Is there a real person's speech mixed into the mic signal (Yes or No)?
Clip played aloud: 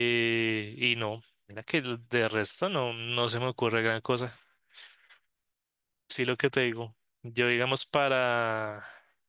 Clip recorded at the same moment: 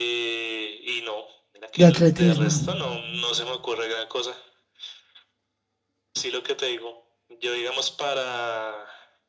Yes